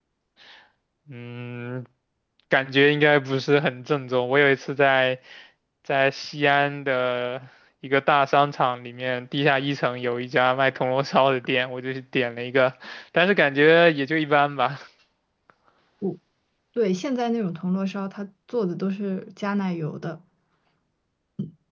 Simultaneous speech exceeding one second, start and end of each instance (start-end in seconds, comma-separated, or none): none